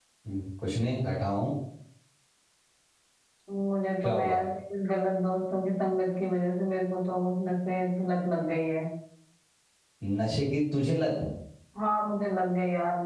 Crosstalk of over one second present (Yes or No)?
No